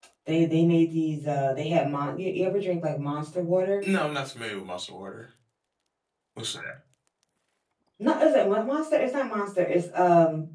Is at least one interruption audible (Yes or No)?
No